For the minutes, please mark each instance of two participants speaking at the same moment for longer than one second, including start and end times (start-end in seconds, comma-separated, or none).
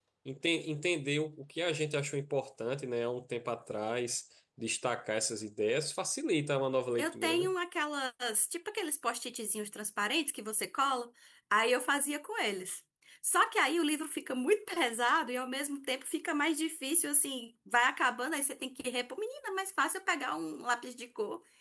none